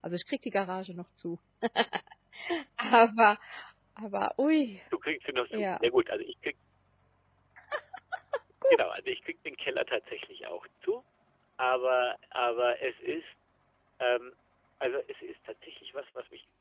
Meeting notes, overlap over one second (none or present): none